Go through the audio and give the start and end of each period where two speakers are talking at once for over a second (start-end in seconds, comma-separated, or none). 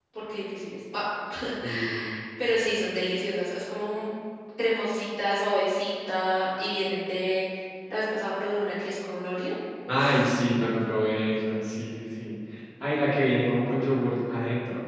none